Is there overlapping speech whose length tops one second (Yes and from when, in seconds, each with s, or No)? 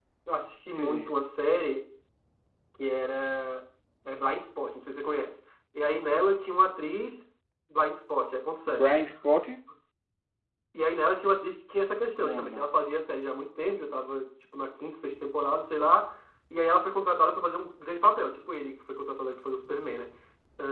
No